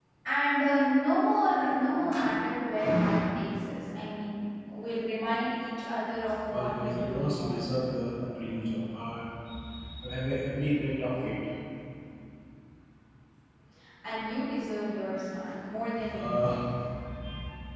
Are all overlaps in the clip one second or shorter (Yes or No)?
No